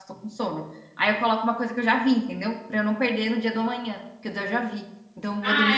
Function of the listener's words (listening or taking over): taking over